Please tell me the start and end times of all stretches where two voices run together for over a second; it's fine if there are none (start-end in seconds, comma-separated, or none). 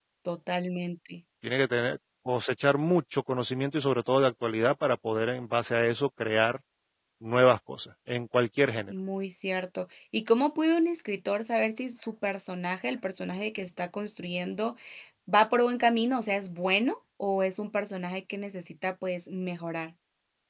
none